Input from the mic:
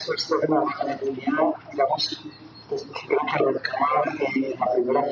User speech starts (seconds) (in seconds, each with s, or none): none